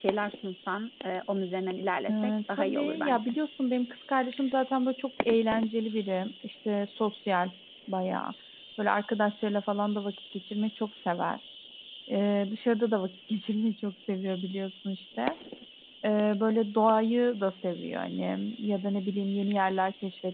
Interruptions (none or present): present